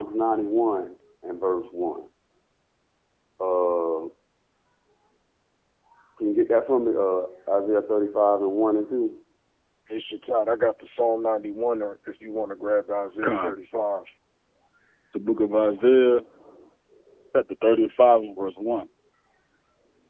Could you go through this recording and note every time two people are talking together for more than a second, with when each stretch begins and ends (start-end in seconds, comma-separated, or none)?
none